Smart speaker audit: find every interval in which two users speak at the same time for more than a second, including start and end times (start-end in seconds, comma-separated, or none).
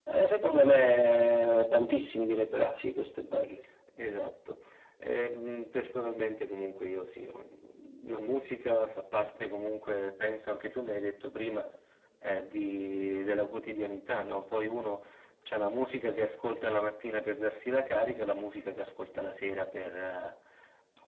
none